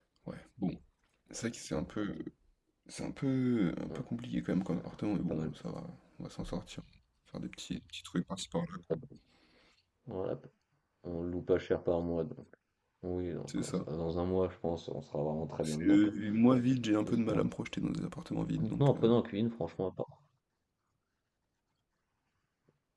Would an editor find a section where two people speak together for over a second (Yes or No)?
No